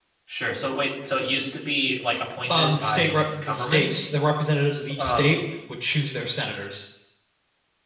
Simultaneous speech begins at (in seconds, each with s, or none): 2.5 s